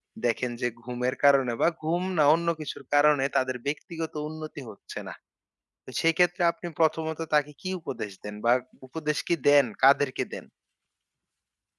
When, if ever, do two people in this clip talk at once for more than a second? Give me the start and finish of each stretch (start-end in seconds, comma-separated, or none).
none